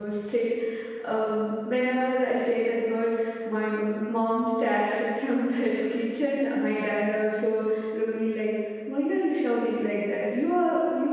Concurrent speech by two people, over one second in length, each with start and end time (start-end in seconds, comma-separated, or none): none